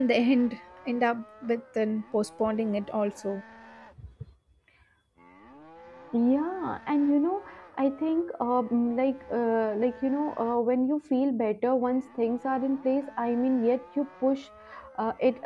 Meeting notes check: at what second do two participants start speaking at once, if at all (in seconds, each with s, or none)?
none